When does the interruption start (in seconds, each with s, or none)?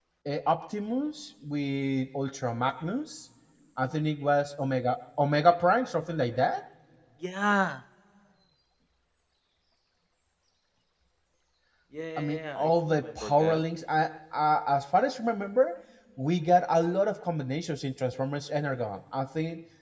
12.2 s